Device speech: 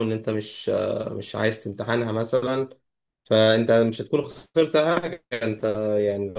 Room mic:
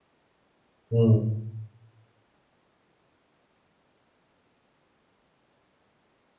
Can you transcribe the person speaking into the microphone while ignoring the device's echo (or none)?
مم.